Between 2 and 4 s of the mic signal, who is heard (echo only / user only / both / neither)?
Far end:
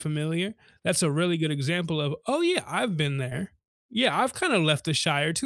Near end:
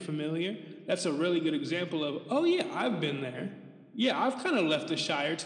echo only